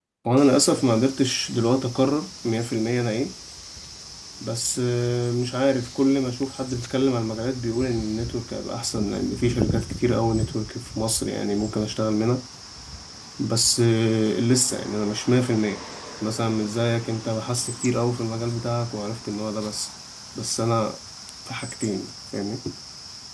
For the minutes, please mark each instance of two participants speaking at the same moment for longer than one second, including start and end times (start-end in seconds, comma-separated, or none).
none